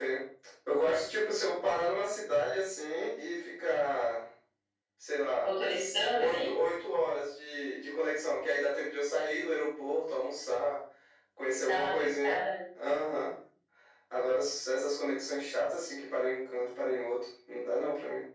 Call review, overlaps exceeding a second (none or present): present